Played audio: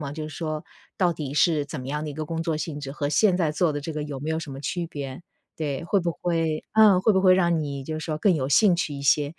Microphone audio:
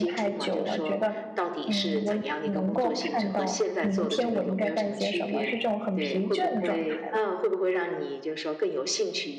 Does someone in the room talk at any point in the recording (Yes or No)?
Yes